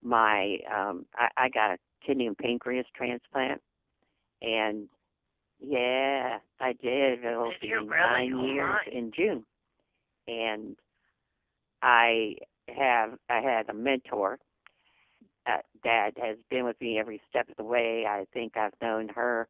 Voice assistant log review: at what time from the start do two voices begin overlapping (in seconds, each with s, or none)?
7.4 s